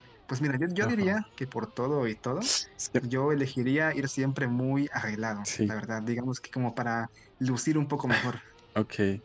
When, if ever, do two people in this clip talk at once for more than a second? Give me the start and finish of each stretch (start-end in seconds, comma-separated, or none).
none